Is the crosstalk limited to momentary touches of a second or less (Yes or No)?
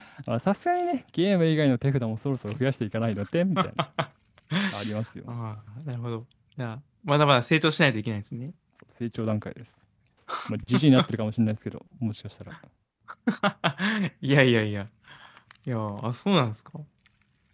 Yes